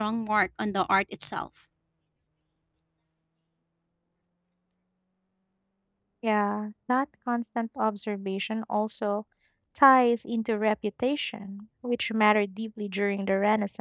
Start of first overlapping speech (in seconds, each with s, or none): none